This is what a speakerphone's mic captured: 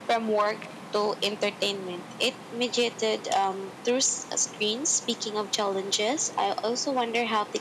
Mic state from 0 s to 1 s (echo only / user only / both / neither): echo only